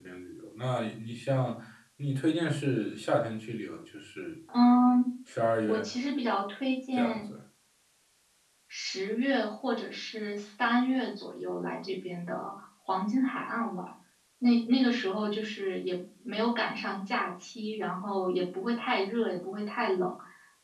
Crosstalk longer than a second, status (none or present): none